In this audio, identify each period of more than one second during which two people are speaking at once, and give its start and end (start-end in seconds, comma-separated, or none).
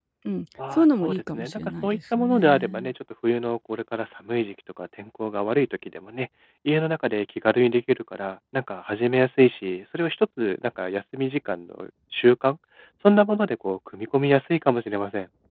0.7-2.9